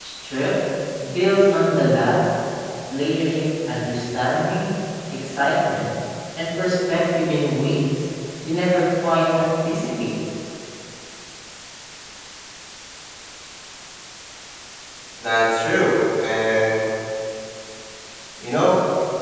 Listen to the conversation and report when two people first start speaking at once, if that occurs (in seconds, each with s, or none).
none